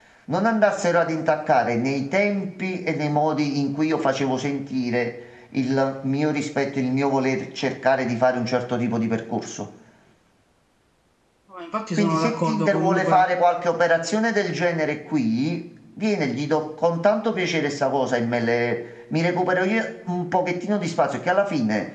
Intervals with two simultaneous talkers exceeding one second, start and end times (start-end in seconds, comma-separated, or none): 12.0-13.2